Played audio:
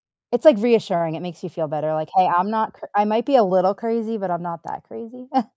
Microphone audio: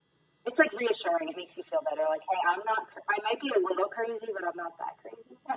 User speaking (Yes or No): No